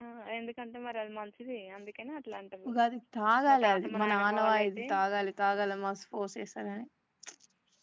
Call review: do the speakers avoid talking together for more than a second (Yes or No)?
No